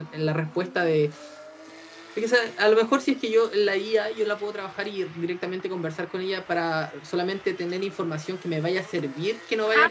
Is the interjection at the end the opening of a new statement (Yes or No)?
Yes